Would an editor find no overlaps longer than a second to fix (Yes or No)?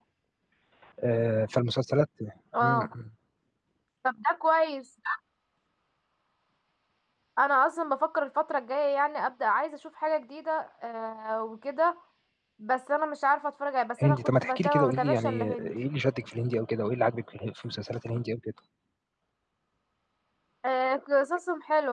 No